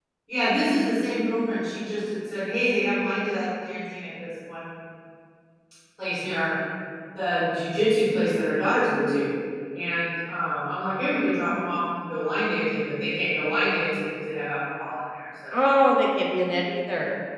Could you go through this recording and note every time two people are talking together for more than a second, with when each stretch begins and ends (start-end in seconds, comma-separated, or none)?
none